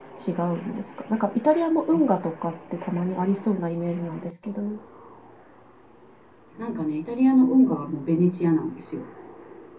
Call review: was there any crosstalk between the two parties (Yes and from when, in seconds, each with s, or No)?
No